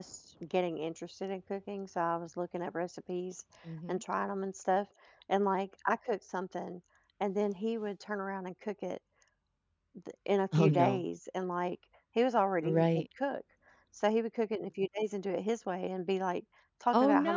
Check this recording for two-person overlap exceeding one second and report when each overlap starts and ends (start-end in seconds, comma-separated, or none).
none